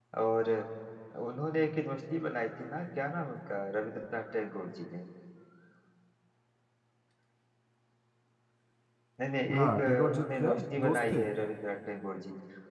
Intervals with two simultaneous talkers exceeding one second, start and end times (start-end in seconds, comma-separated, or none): 9.5-11.2